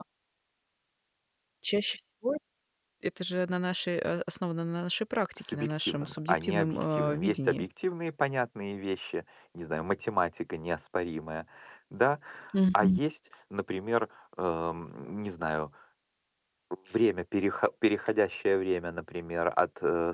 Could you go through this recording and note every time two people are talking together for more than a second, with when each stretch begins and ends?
5.4-7.7

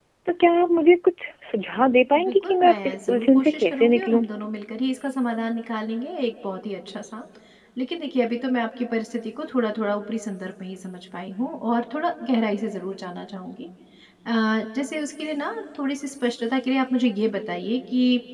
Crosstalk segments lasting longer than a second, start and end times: 2.2-4.2

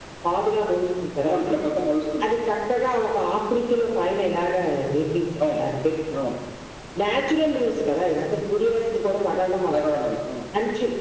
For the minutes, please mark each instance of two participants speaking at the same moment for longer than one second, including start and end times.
none

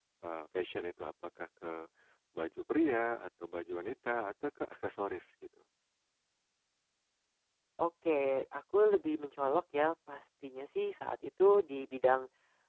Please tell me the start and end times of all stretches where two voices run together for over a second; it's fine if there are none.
none

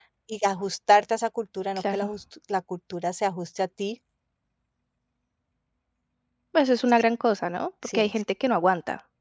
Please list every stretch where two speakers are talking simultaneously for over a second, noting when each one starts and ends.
none

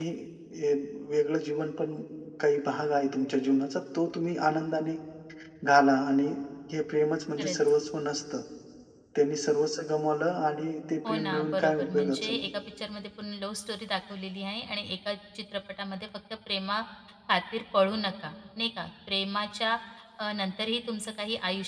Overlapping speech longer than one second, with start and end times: 11.0-12.5

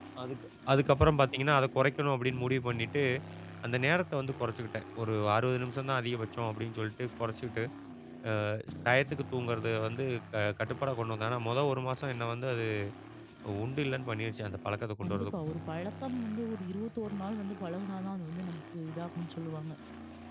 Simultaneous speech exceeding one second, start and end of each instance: none

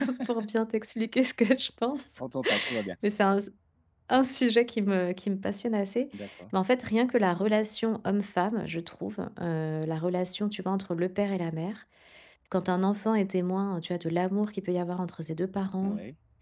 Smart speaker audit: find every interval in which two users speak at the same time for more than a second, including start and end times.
none

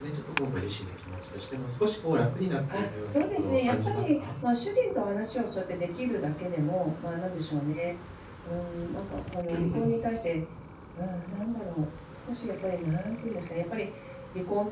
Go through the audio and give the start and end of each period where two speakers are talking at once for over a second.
2.7-4.3

